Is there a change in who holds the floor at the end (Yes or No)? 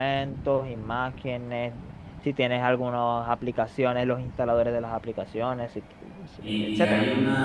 Yes